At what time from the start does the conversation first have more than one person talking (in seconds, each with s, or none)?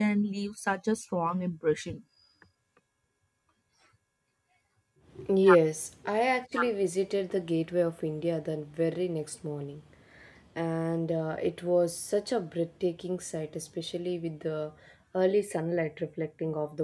none